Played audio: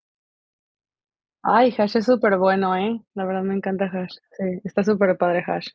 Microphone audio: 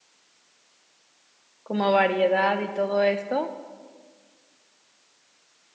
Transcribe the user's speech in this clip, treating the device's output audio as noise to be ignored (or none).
como variedad y todo esto,